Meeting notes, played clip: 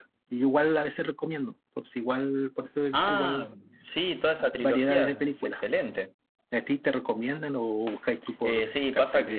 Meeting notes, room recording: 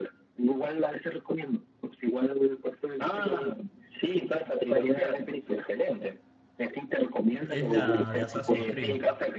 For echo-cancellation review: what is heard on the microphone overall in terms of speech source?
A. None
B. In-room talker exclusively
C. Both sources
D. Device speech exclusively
C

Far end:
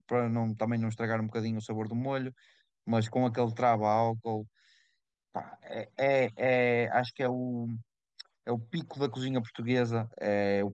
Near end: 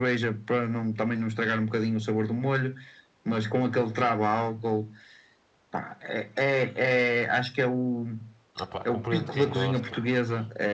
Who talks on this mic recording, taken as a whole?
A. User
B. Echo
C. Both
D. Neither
C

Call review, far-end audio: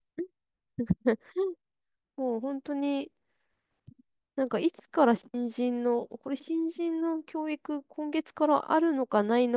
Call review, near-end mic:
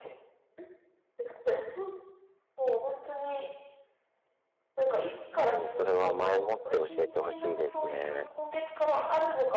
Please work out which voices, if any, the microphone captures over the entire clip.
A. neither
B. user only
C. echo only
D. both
D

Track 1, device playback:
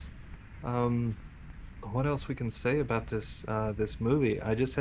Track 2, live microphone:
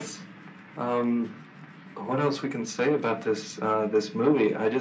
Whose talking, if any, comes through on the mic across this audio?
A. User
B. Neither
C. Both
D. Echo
D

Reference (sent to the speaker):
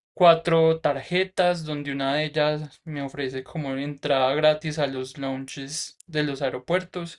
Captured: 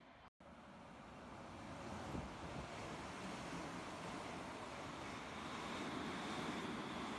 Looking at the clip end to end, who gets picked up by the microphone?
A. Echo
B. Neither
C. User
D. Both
B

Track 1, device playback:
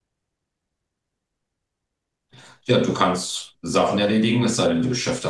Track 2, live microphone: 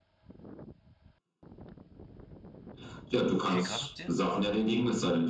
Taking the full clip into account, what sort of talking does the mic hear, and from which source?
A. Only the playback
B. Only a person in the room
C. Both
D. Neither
C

